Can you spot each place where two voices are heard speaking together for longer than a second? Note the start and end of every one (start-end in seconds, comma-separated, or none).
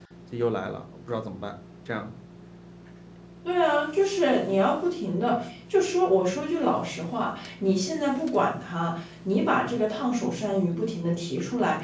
none